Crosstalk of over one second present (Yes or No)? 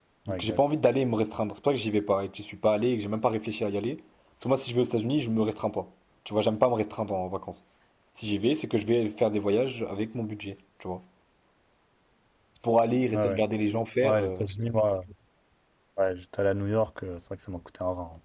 No